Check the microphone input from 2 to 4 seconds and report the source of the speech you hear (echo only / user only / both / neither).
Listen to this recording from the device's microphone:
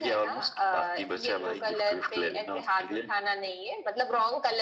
echo only